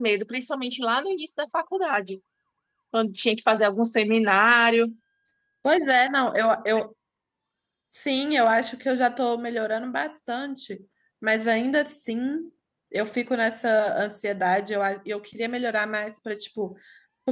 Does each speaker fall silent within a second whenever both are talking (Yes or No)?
Yes